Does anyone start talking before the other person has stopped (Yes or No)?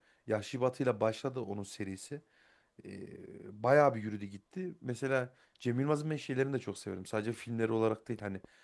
No